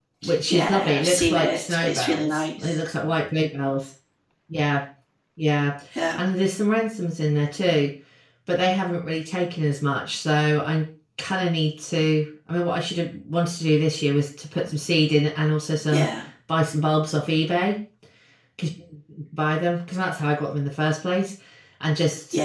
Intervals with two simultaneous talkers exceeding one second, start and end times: 0.5-2.8

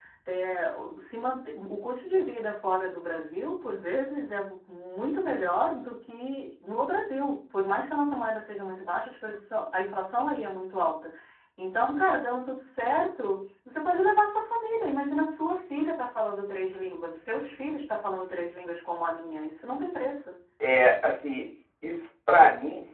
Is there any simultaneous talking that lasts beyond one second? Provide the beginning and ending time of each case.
none

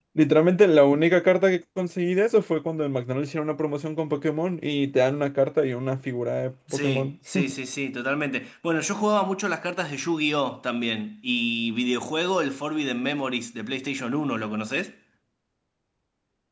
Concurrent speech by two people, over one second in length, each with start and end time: none

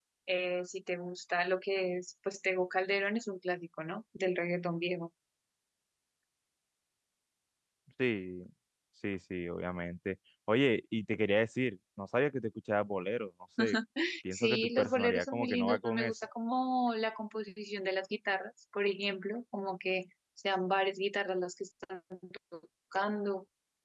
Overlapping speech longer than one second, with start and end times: 14.3-16.1

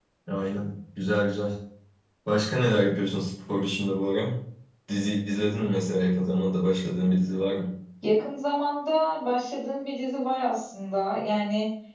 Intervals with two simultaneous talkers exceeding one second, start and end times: none

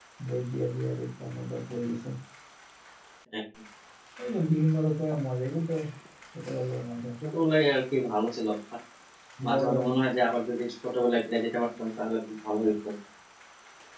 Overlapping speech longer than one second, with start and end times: none

